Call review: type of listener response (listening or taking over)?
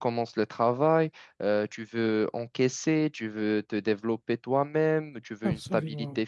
listening